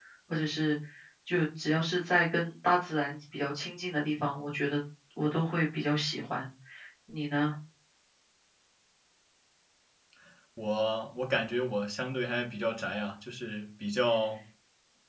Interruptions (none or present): none